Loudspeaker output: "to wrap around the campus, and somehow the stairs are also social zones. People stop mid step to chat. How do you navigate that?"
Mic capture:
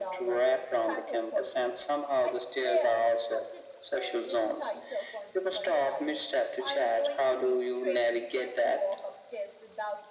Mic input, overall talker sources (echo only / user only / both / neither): both